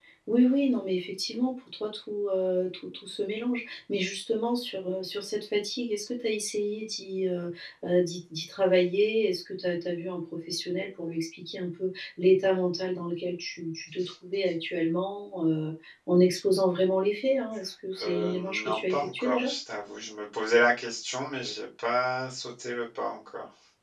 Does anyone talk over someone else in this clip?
Yes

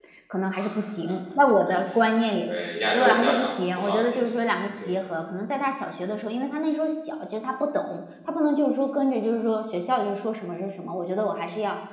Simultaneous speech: Yes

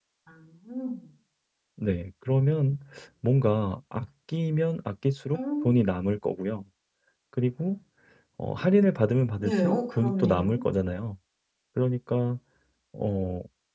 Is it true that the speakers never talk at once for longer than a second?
No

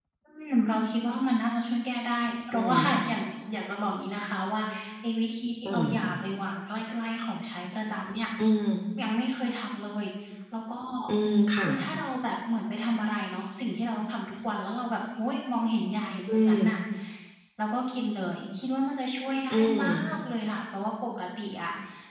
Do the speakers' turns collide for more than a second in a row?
No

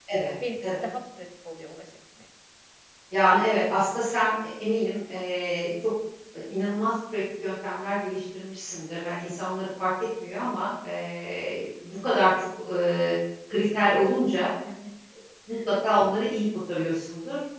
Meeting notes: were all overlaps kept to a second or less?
Yes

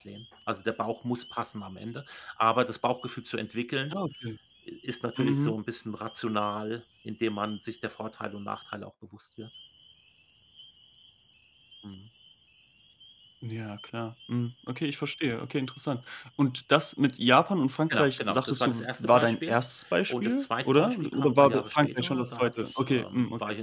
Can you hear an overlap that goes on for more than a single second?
Yes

